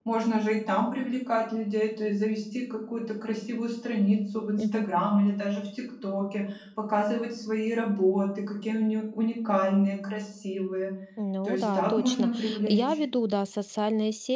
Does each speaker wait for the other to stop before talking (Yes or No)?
No